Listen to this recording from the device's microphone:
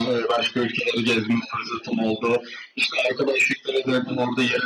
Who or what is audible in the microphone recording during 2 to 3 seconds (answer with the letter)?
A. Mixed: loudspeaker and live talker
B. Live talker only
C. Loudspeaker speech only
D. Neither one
C